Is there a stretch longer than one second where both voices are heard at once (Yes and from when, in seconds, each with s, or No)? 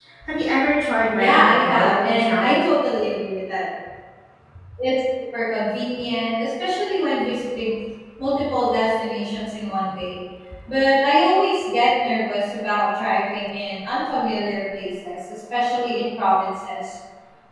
Yes, from 1.1 s